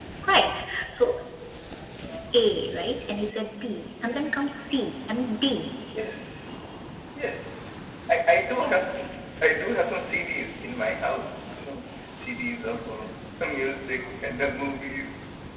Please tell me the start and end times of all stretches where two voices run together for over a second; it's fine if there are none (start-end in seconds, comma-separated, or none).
none